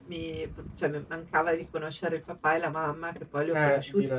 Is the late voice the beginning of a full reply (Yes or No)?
No